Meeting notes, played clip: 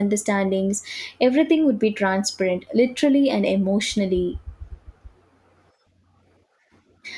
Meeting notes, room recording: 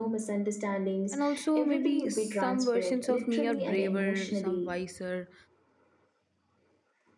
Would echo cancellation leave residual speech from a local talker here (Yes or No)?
Yes